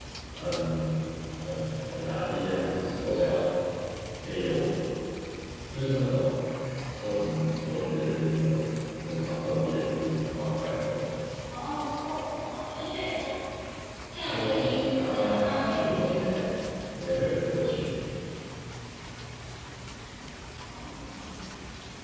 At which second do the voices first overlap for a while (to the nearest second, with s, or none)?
14 s